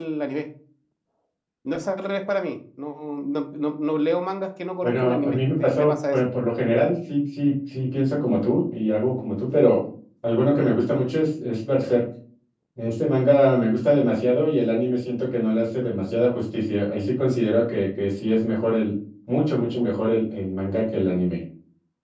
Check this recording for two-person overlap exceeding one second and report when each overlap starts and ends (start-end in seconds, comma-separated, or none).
4.8-6.2